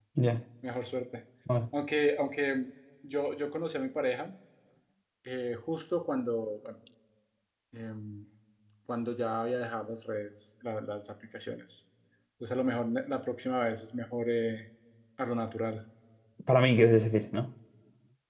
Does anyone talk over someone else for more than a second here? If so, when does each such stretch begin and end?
none

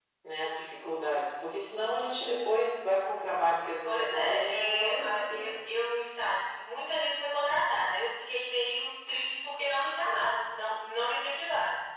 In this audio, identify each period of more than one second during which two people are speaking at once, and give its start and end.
3.8-5.5

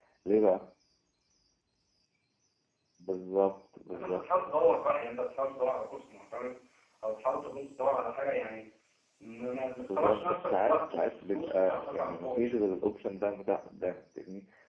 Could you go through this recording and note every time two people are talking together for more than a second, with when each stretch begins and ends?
9.9-12.7

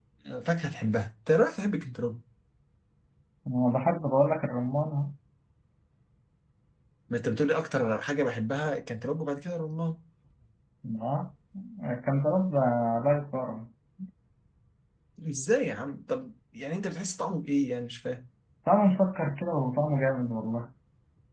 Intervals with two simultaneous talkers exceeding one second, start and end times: none

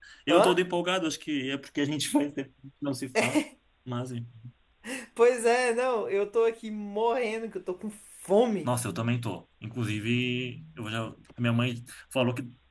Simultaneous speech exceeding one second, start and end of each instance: none

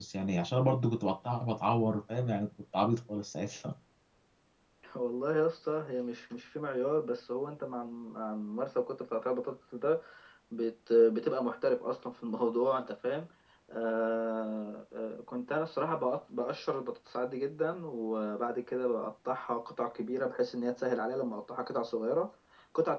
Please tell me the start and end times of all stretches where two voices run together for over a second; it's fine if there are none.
none

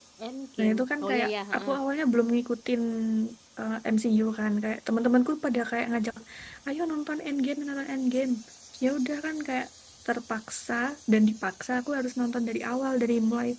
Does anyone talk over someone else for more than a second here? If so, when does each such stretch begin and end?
0.6-1.8

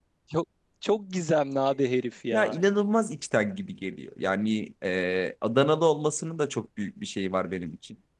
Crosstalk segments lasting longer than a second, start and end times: none

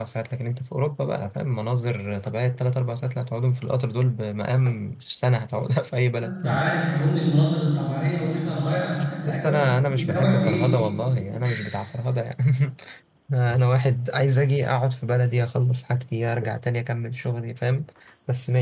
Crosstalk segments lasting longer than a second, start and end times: 9.3-10.6

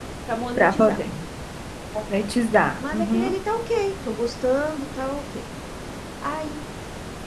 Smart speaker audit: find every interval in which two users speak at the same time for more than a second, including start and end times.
none

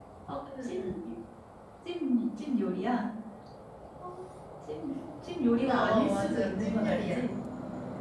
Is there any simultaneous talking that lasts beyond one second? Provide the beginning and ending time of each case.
5.7-7.2

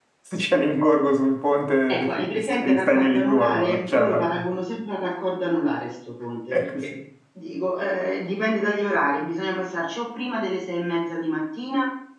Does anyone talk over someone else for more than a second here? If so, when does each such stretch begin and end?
1.9-4.5

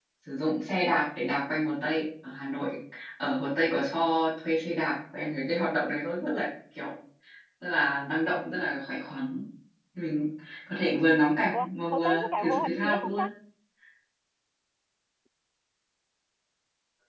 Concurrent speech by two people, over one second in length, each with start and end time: 11.5-13.3

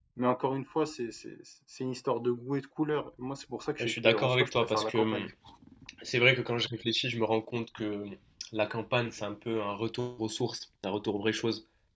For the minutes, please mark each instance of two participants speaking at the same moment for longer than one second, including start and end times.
3.8-5.3

